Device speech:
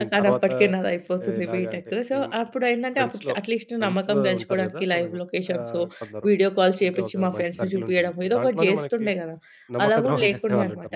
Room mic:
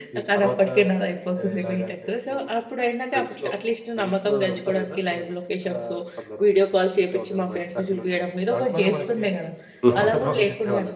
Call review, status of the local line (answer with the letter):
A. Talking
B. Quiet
A